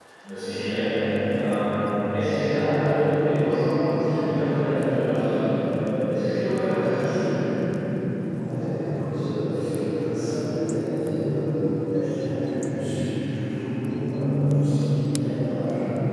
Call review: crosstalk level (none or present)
none